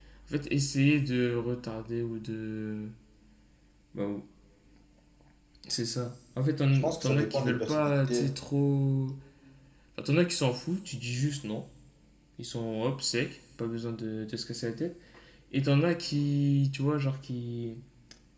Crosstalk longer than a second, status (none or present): present